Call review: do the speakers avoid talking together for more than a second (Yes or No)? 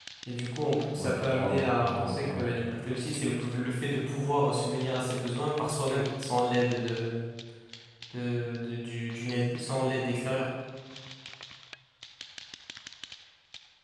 No